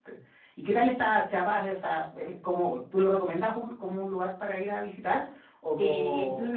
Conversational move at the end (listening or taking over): taking over